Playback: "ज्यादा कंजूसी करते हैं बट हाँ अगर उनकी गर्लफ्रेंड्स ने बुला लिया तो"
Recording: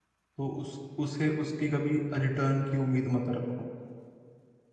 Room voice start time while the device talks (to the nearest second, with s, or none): 0 s